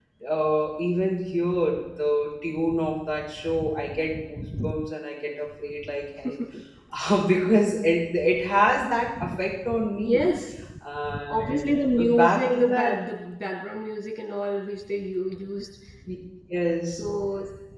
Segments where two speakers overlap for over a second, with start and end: 11.3-12.9

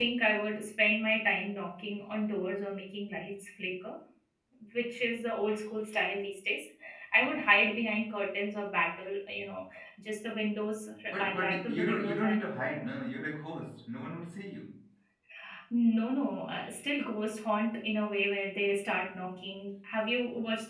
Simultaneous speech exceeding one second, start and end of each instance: 11.1-12.4

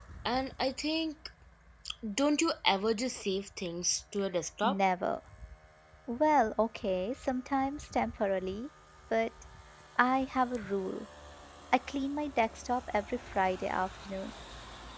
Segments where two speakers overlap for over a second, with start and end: none

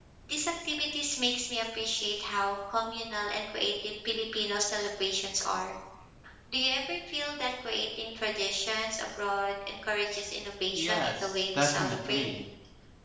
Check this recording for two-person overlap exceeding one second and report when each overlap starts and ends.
10.7-12.3

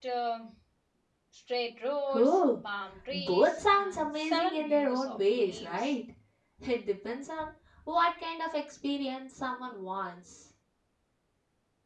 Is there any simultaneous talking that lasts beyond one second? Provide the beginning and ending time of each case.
3.1-5.7

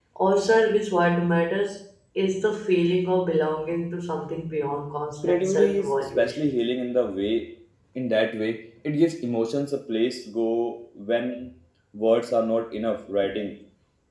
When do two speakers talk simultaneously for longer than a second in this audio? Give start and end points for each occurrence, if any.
5.3-6.5

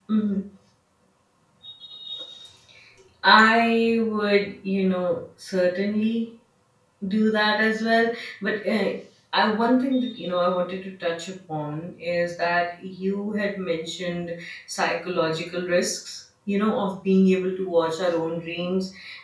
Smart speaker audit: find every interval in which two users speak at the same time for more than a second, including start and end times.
none

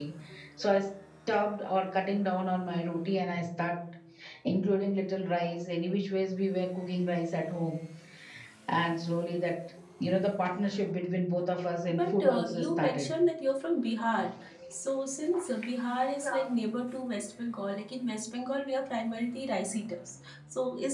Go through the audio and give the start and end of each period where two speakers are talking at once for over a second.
11.9-13.1

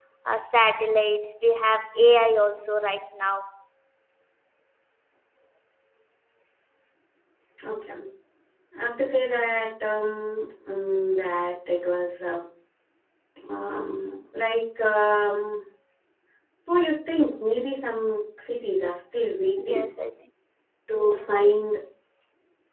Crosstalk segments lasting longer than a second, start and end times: none

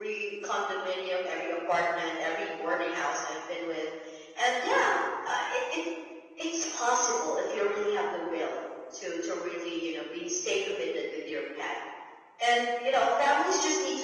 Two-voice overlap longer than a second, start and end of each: none

